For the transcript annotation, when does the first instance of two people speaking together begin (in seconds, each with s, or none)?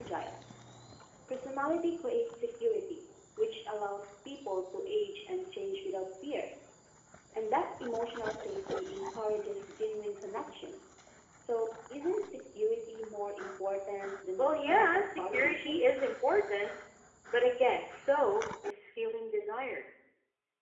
14.4 s